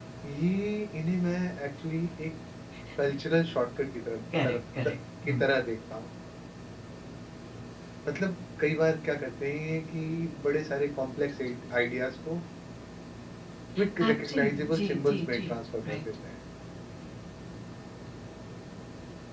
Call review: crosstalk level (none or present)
present